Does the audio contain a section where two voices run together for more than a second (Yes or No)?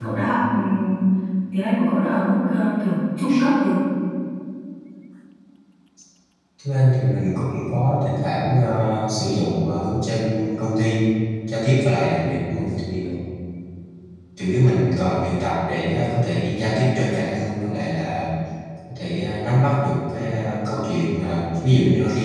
No